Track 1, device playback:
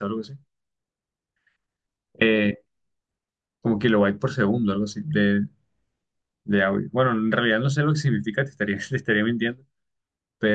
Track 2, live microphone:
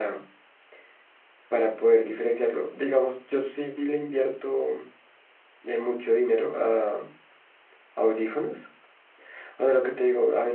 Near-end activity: present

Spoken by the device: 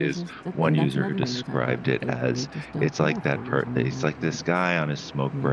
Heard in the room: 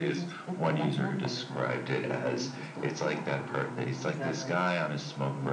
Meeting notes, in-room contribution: present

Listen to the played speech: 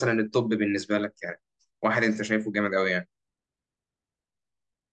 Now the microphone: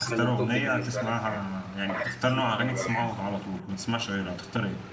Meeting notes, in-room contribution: present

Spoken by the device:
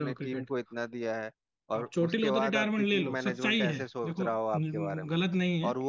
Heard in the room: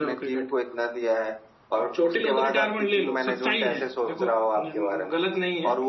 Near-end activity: none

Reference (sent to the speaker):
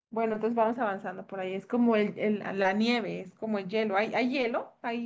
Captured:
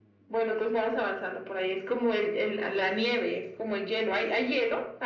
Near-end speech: none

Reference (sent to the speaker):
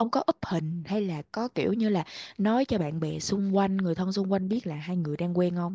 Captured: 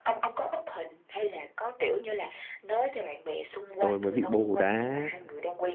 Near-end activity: present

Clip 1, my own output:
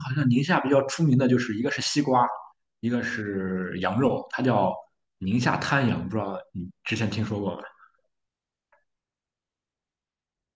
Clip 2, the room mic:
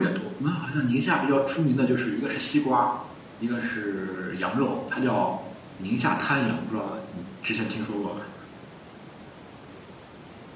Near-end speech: none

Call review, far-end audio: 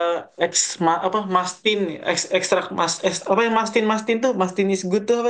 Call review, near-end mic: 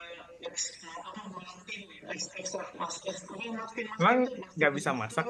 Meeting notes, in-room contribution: present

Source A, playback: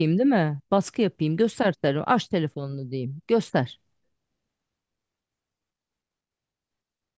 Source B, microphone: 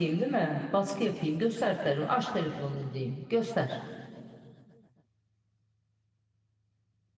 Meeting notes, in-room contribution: none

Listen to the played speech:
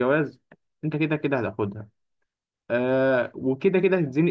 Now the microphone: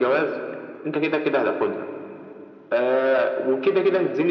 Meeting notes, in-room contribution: none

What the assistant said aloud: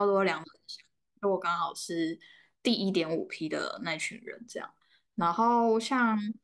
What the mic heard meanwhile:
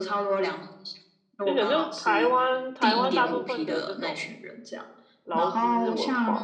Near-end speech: present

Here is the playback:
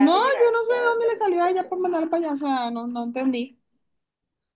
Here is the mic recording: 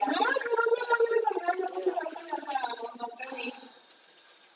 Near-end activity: present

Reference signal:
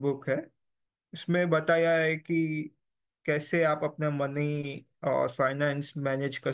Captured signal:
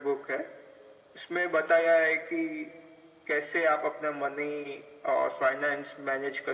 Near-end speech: none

